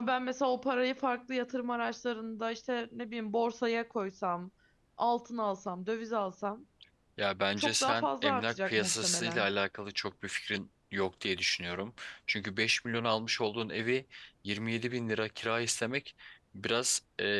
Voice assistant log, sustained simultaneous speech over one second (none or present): present